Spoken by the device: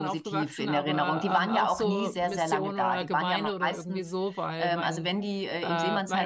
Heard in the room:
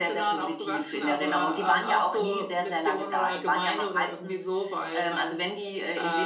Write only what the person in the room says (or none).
none